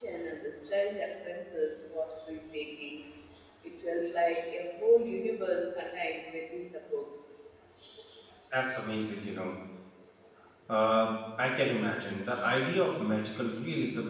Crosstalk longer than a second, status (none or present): none